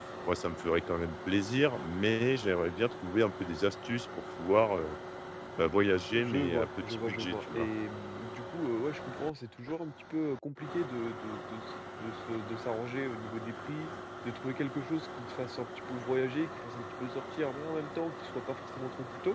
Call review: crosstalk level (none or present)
present